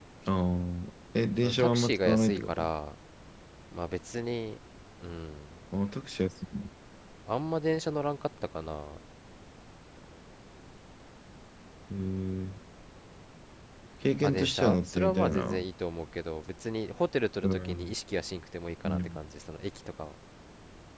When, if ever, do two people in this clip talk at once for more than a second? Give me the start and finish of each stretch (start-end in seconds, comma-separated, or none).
1.4-2.7, 14.2-15.6